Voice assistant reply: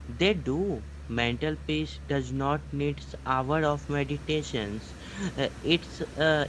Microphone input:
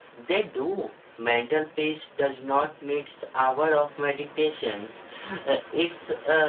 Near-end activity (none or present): none